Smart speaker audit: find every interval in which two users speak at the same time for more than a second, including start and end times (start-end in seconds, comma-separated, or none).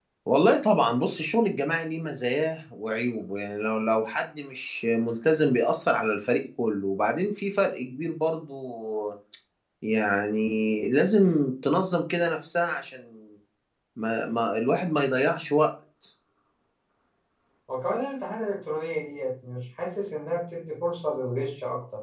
none